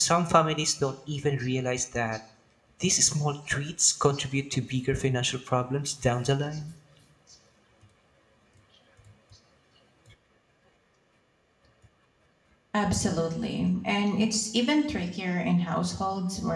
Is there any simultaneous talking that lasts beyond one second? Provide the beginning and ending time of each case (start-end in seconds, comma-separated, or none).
none